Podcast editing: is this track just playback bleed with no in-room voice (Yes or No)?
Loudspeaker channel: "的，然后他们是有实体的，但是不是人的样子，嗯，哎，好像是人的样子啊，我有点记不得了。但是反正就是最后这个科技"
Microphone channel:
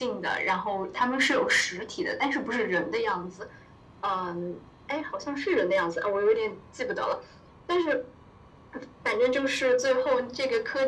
Yes